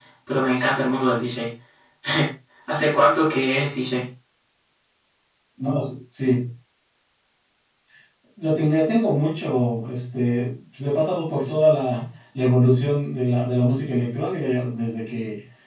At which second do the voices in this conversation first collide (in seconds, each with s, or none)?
none